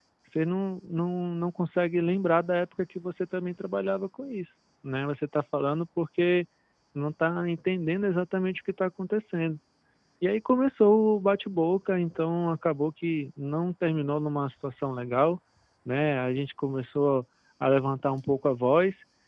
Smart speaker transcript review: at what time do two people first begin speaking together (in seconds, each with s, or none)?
none